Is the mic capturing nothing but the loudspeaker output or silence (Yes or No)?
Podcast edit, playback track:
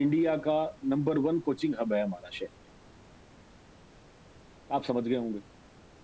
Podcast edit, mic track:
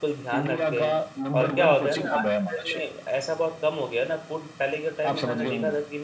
No